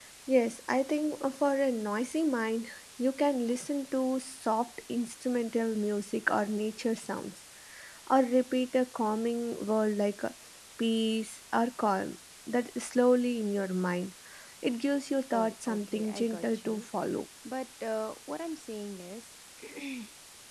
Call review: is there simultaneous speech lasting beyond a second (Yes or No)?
Yes